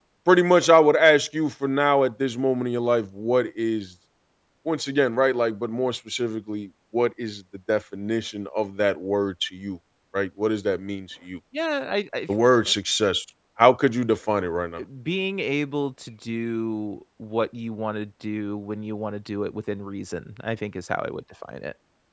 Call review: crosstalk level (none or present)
none